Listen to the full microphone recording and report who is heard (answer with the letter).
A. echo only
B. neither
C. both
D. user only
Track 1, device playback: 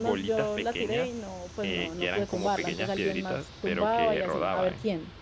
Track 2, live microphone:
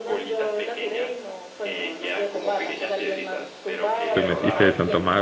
C